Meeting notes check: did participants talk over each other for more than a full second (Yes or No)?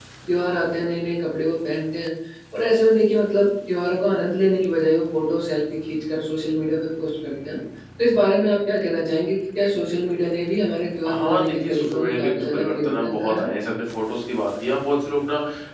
Yes